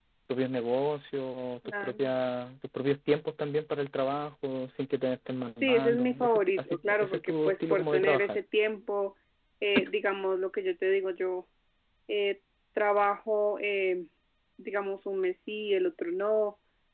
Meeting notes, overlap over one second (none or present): present